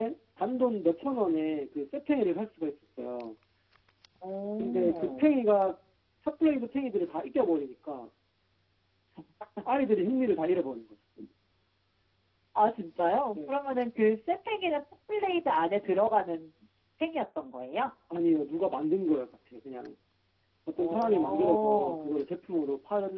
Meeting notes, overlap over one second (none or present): present